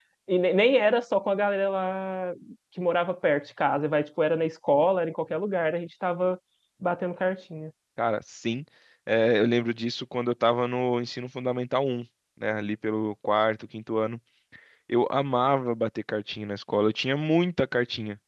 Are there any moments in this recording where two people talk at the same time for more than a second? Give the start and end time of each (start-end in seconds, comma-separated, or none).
none